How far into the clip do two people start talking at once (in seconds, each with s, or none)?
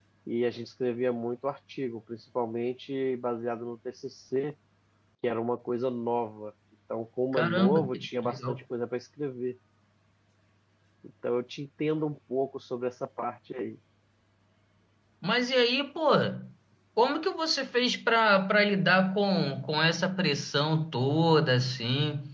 7.3 s